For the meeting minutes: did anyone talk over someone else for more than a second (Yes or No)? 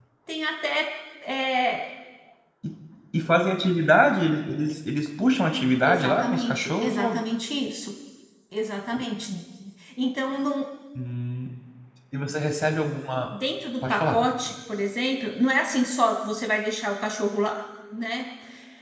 Yes